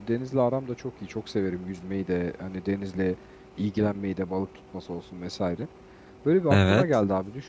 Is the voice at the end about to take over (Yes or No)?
No